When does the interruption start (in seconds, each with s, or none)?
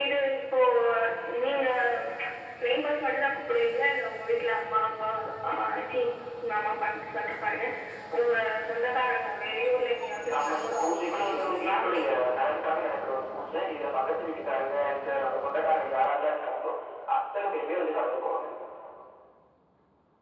10.3 s